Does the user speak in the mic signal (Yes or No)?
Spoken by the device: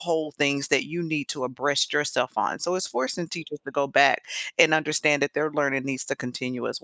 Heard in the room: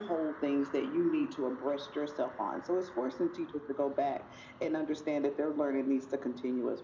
No